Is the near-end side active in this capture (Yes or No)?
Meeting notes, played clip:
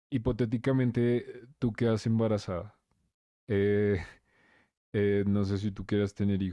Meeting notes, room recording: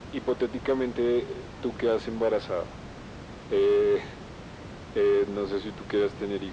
No